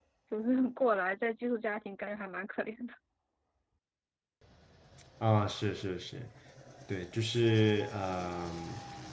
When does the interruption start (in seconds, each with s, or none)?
none